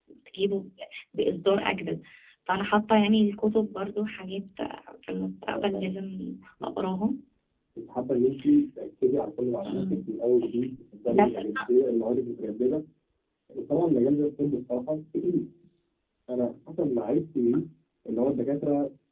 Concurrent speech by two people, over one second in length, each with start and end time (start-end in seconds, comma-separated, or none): none